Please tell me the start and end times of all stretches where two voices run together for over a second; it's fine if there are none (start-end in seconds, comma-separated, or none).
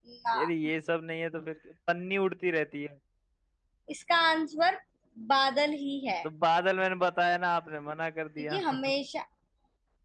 none